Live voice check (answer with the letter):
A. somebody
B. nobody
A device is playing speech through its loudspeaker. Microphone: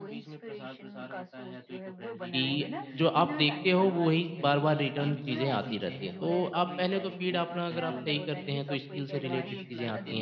A